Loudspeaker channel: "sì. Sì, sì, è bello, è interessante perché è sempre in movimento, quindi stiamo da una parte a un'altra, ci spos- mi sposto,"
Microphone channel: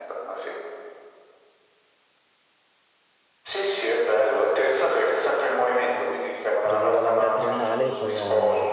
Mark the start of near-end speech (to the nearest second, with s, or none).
7 s